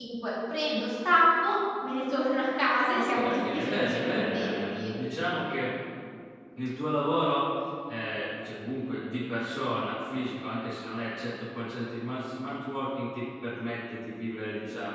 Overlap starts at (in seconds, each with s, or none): 2.9 s